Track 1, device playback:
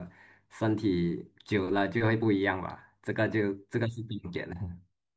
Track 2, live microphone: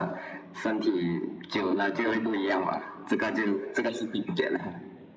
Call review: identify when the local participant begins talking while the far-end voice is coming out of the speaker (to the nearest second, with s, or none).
none